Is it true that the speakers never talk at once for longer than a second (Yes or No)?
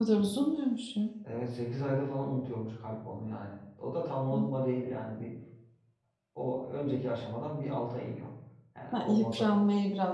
Yes